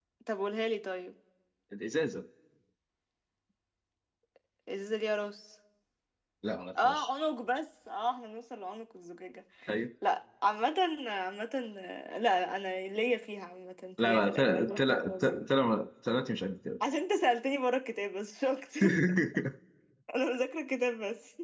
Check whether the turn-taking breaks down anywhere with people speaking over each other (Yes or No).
Yes